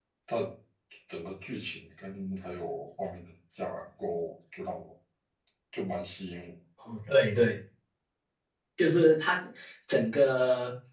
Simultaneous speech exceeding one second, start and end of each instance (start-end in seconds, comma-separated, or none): none